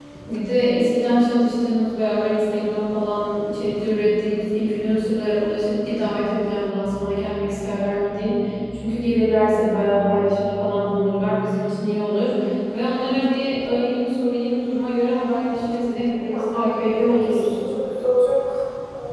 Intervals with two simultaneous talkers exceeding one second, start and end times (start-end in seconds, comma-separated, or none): 15.9-17.5